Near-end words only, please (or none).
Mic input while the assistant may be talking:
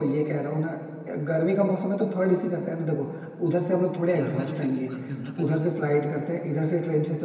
यार मैं तो फिर घर पे हूँ ना फिलहाल